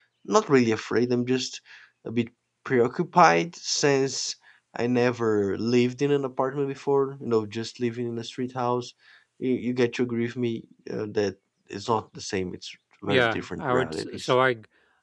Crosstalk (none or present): present